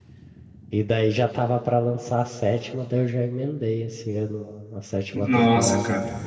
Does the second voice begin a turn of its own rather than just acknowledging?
Yes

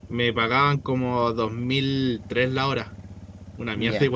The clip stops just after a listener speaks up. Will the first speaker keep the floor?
No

